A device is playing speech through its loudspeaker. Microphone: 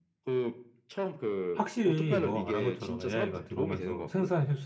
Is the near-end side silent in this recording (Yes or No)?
No